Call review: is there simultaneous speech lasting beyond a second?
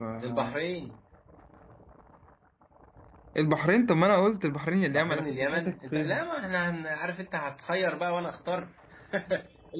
Yes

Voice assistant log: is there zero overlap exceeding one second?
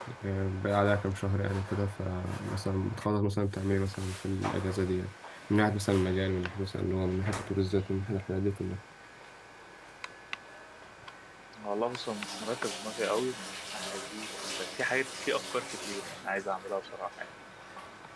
Yes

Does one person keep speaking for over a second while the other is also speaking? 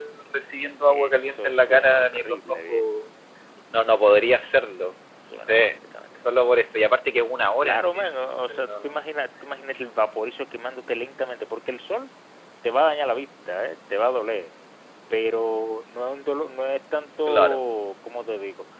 Yes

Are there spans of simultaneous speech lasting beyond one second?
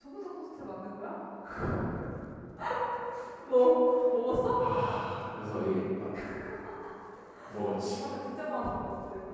No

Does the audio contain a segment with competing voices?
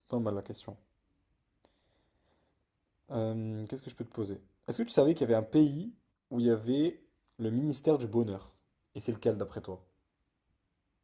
No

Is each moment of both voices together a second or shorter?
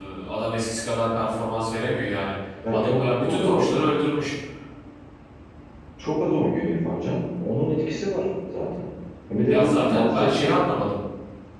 No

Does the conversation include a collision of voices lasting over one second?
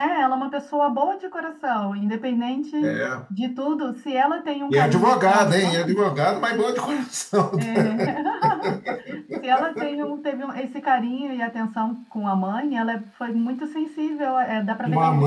Yes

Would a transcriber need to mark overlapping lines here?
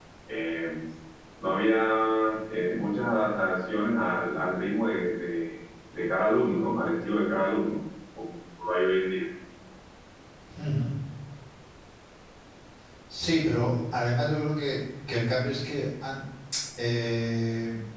No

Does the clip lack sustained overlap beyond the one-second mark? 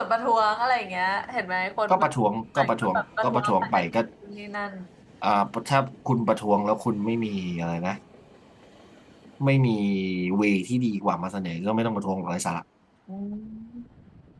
No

